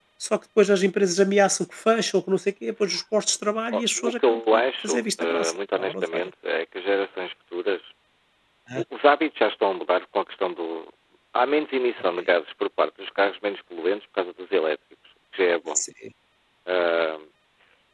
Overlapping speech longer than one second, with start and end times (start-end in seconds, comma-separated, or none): 3.7-6.3